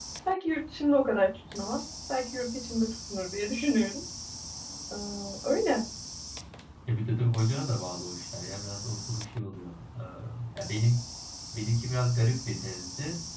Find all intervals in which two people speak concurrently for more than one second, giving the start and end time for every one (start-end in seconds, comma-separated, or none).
none